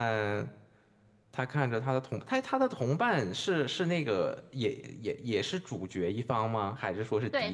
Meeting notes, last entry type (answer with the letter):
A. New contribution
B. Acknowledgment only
A